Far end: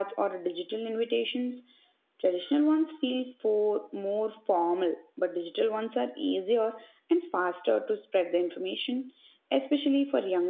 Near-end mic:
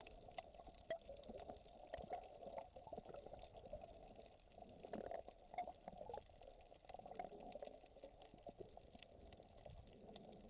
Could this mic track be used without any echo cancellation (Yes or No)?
Yes